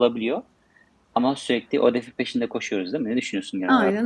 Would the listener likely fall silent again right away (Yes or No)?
No